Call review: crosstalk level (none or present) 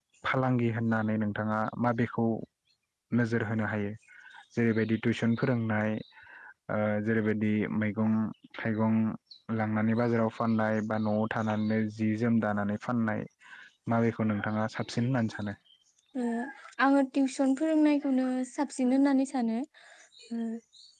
none